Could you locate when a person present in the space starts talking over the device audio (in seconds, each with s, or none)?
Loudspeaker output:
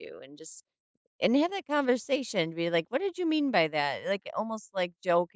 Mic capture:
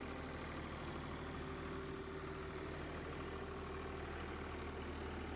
none